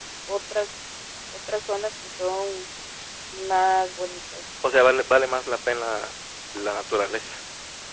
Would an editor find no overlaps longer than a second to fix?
Yes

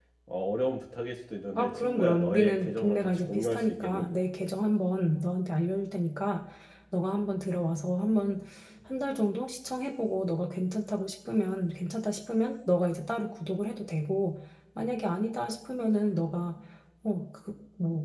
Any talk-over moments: Yes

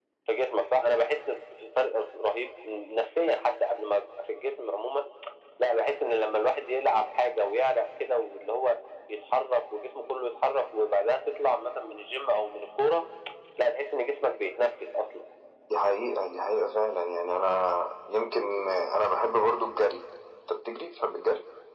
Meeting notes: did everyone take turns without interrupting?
Yes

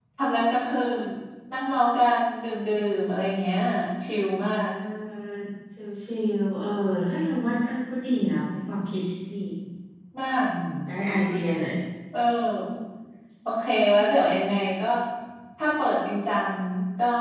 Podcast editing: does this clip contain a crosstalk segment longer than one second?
No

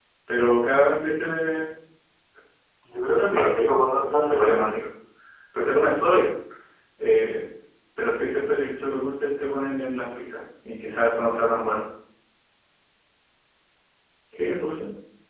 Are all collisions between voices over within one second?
No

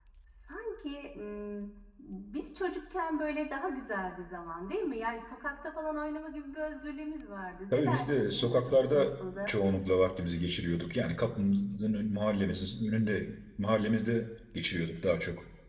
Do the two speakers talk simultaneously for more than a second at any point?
Yes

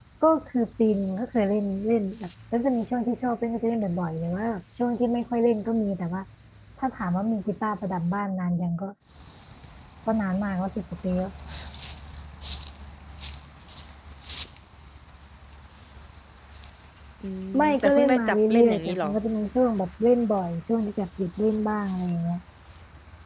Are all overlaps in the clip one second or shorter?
No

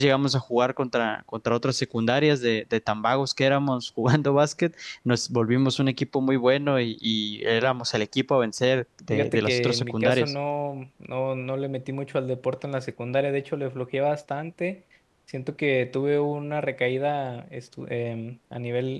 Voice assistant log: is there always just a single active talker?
No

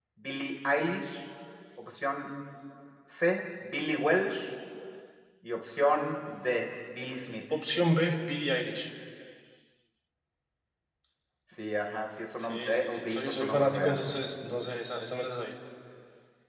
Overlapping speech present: Yes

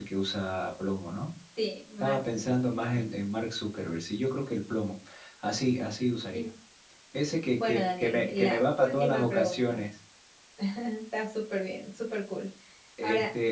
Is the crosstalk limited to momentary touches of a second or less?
No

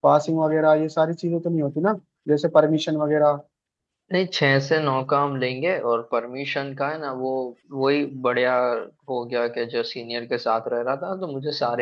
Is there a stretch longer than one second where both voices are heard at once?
No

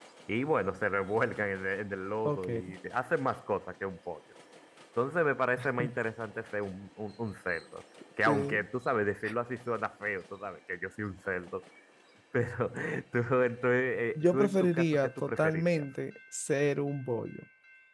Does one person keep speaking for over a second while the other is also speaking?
Yes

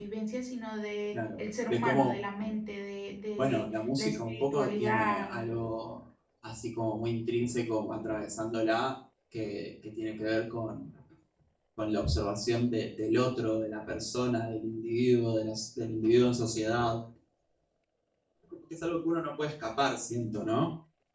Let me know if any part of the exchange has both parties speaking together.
Yes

